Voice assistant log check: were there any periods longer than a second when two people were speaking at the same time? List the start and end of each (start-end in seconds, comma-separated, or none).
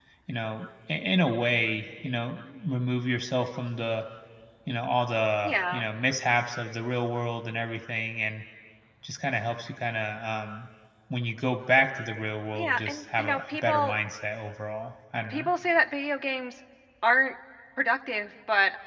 12.5-14.0